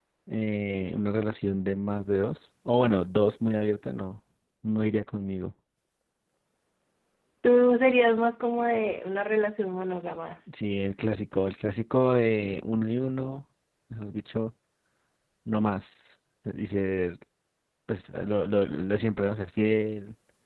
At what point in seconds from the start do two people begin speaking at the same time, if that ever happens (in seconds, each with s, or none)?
none